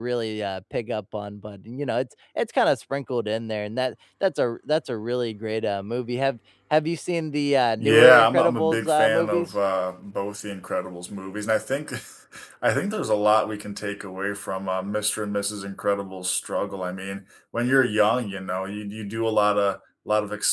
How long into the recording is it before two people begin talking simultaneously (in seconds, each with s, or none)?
7.8 s